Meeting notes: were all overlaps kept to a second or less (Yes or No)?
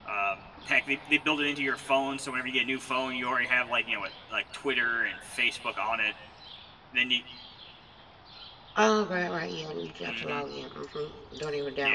Yes